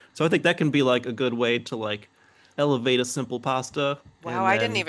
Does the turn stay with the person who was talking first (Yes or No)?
No